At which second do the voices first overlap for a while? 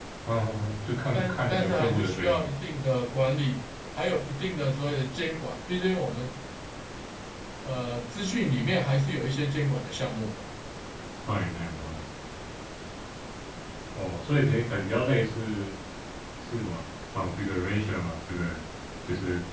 1.1 s

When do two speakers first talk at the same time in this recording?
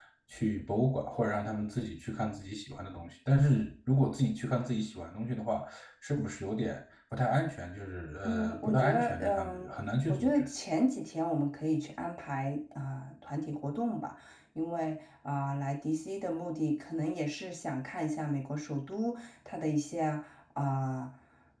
8.2 s

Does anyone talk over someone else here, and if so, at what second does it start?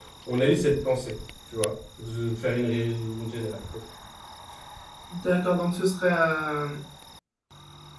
none

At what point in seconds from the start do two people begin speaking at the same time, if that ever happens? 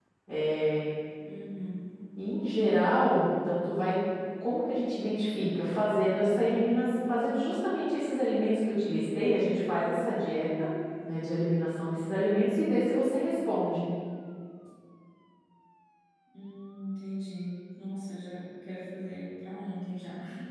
none

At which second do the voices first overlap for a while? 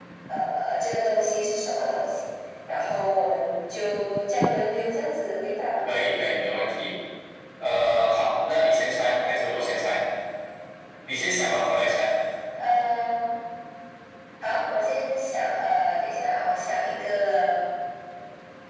none

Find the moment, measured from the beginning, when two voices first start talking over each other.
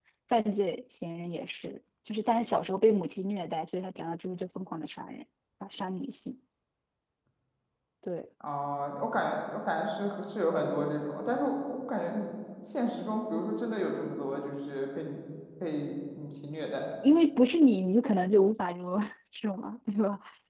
none

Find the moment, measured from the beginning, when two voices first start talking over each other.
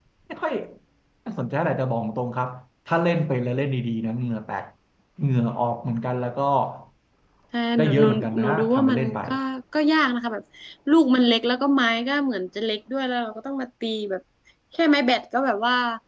7.8 s

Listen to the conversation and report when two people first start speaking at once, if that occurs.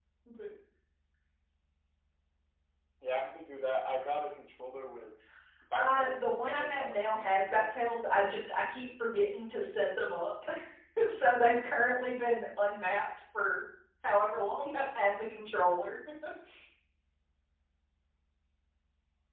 5.8 s

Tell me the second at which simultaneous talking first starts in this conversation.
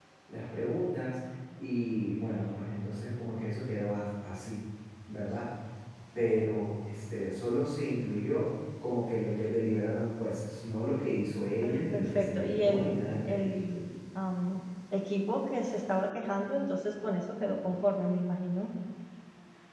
11.6 s

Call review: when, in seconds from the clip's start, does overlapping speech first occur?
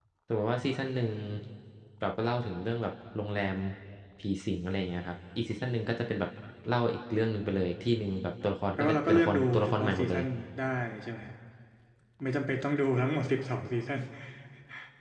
8.8 s

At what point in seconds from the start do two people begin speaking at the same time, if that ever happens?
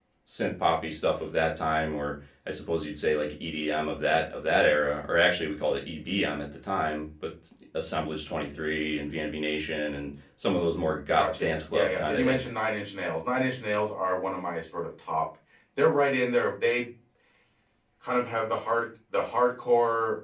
11.2 s

